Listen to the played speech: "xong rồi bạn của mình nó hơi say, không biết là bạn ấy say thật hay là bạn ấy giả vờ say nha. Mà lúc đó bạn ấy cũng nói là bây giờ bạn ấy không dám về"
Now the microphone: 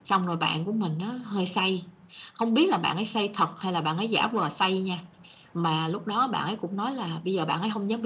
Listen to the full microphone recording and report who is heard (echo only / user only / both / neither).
echo only